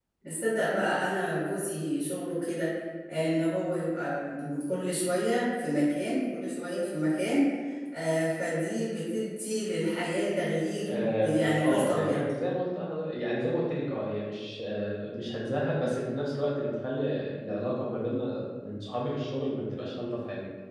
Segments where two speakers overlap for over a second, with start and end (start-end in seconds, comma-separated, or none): 10.9-12.2